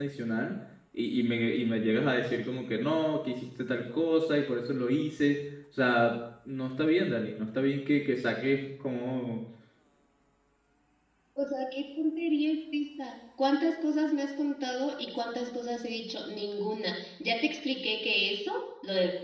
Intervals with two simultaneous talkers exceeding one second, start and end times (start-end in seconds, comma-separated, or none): none